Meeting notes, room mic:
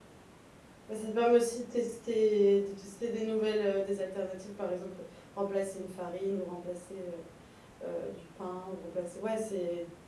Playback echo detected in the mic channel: No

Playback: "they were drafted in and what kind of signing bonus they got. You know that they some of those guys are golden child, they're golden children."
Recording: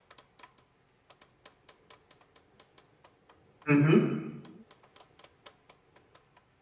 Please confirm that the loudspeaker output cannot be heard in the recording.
Yes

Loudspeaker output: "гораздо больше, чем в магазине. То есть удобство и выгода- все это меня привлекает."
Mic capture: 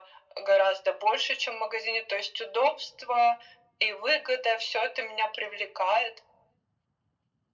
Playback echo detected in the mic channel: Yes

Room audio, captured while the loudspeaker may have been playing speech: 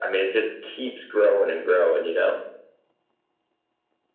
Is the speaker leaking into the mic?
Yes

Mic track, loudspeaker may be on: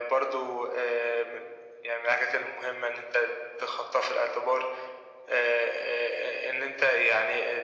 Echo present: Yes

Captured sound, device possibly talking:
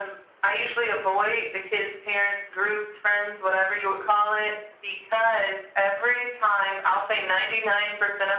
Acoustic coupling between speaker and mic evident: Yes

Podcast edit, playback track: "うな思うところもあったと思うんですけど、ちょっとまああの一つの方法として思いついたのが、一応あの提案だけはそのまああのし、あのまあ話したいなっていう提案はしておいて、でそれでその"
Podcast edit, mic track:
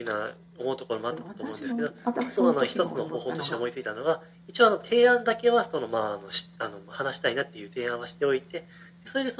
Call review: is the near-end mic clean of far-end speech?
No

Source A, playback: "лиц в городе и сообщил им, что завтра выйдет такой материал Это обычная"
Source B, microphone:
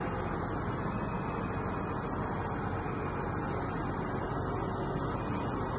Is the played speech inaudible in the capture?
Yes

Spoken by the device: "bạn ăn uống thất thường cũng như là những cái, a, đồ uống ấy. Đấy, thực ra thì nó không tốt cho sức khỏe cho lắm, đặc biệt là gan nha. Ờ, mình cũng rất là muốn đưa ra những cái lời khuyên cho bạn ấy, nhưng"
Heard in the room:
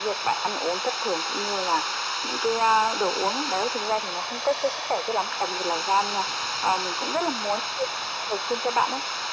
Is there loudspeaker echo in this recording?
Yes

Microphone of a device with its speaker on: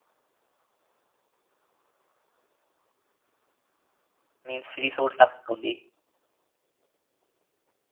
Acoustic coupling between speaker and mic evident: No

